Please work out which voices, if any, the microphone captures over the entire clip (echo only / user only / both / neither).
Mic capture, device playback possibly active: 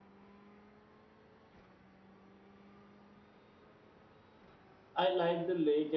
user only